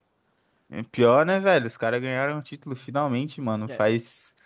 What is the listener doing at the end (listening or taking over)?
listening